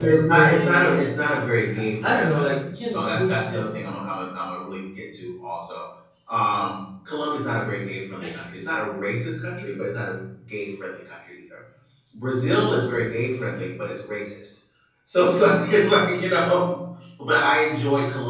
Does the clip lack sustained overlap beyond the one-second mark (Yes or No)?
No